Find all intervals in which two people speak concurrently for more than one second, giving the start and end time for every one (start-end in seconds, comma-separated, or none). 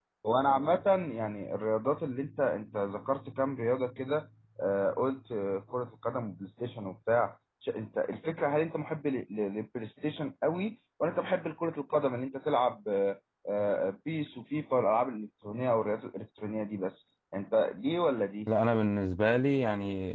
none